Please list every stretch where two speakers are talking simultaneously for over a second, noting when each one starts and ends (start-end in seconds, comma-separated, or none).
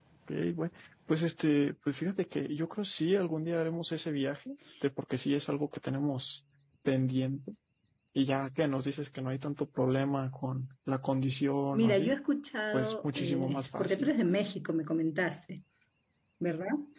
12.7-14.1